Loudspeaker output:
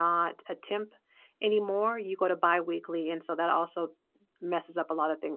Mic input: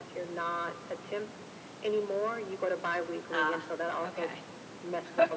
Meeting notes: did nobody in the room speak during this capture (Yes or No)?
No